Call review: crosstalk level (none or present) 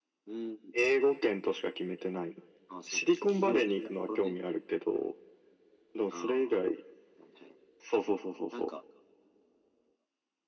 present